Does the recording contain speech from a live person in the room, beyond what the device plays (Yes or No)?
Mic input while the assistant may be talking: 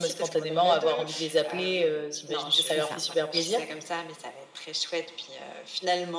Yes